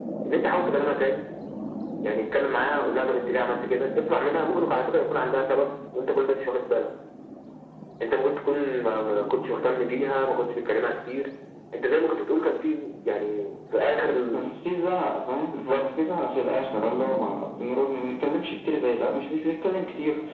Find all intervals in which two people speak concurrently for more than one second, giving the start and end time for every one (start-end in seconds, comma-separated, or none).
none